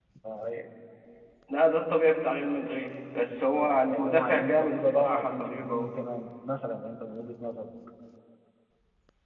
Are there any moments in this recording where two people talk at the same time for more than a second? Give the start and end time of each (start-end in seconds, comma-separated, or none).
3.6-5.9